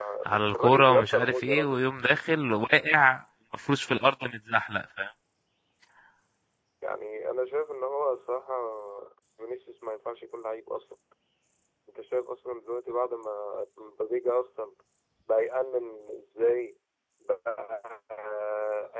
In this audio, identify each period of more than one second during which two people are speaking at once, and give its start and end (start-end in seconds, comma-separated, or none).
0.6-1.8